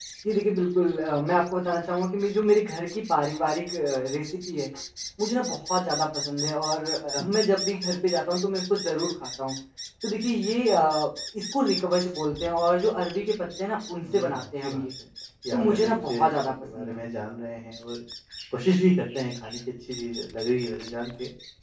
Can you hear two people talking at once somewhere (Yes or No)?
Yes